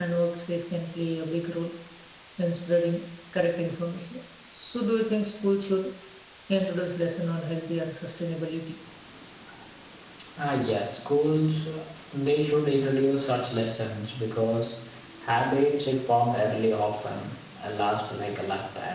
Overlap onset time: none

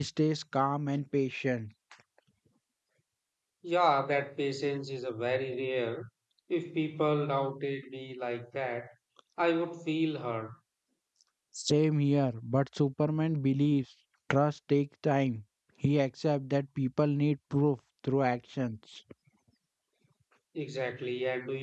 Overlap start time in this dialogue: none

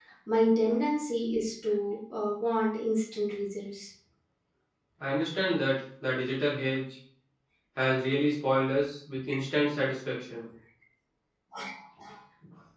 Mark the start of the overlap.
none

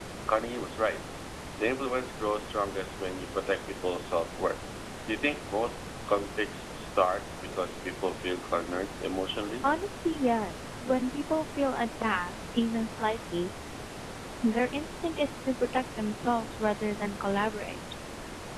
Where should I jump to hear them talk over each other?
none

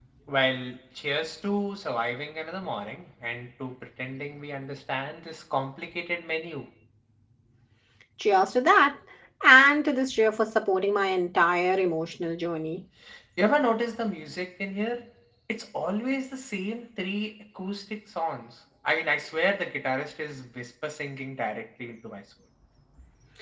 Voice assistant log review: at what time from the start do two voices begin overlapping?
none

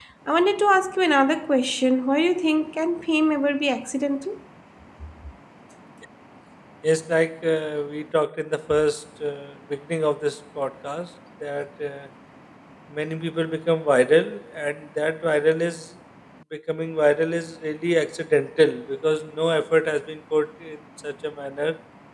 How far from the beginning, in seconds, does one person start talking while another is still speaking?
none

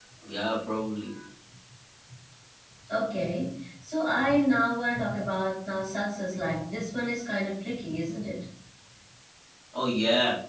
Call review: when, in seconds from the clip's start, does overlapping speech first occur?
none

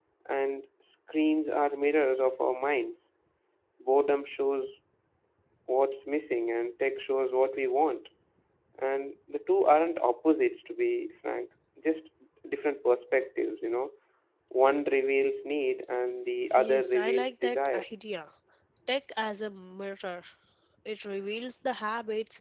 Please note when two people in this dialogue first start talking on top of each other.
16.5 s

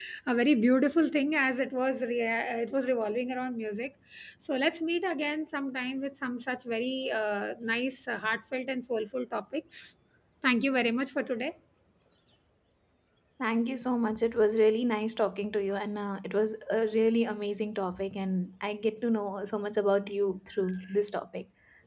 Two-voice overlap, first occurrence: none

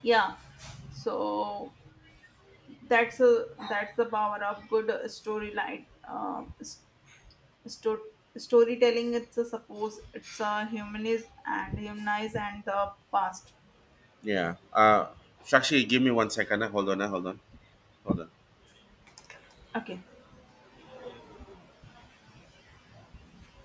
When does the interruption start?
none

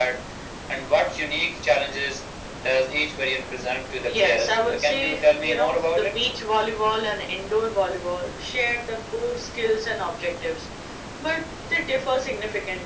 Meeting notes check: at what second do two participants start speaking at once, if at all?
4.0 s

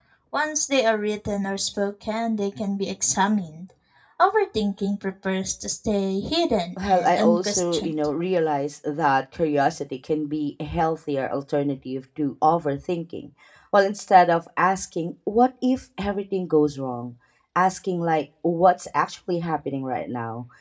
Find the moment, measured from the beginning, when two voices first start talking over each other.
6.8 s

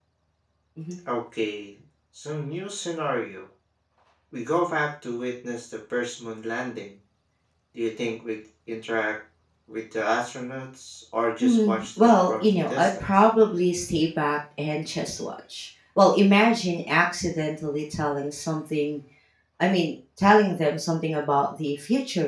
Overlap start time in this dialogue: 11.4 s

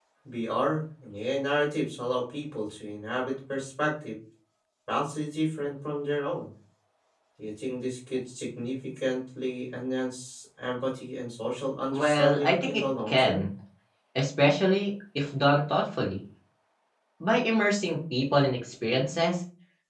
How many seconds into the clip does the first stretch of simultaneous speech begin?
11.9 s

